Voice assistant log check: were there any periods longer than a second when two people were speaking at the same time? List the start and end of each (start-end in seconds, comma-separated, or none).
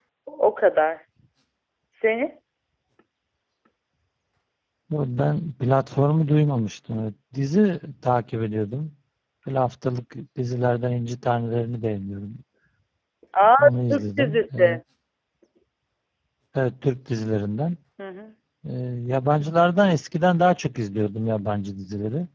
13.6-14.8